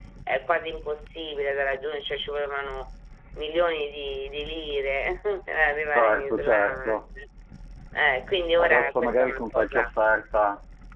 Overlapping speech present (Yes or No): Yes